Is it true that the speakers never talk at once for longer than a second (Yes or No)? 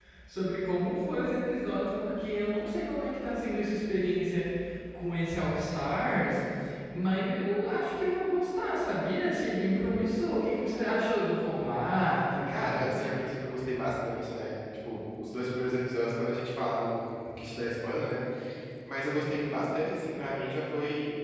Yes